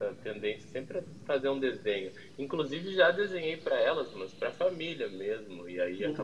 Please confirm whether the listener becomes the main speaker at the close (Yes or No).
No